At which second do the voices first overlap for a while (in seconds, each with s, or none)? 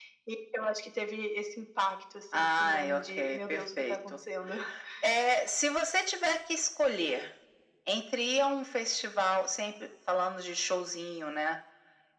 2.3 s